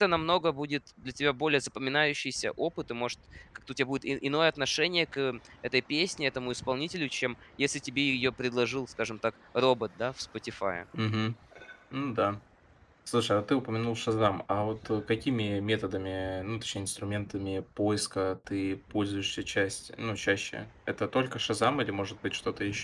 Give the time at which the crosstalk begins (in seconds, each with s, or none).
none